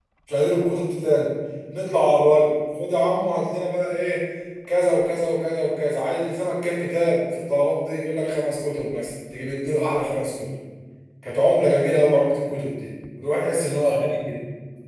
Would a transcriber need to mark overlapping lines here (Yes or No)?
No